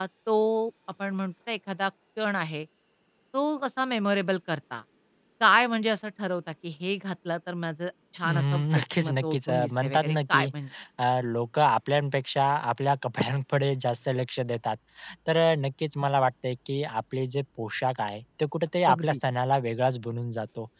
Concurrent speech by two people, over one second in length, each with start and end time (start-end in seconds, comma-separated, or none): 8.2-10.4